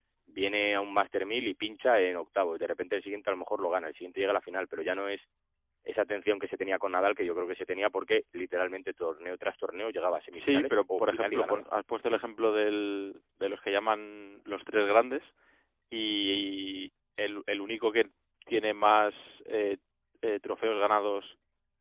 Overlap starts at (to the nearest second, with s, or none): 10 s